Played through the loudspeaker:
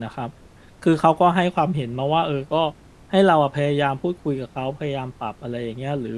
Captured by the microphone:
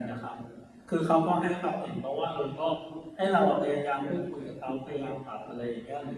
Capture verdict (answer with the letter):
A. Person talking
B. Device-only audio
B